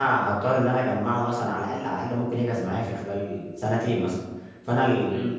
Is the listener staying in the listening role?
Yes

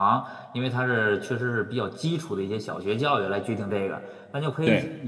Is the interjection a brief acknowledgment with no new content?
Yes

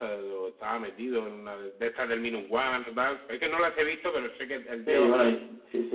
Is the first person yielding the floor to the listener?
Yes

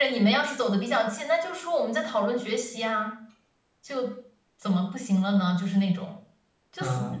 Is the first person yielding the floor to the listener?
Yes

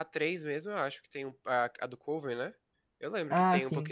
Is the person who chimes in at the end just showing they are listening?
Yes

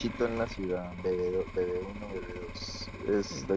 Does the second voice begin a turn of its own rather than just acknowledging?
No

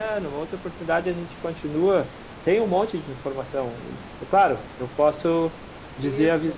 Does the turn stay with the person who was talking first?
Yes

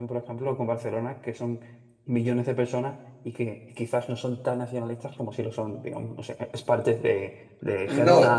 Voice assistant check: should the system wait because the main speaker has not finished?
No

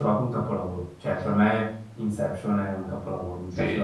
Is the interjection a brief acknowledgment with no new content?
No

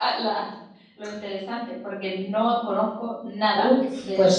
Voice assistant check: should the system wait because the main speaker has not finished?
No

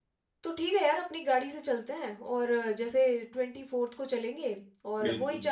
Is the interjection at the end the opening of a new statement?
No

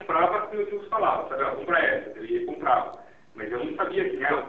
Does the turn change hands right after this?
No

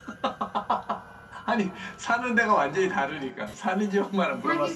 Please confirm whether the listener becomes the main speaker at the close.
Yes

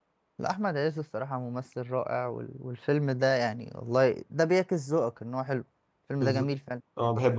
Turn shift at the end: Yes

